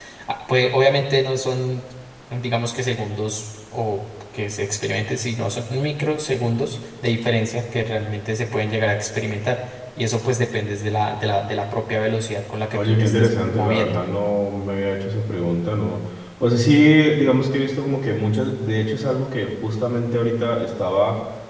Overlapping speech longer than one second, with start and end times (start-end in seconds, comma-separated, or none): 12.7-14.0